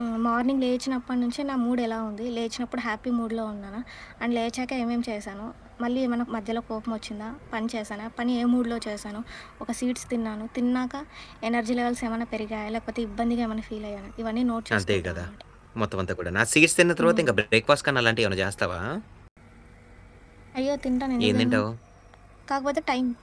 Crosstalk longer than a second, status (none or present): none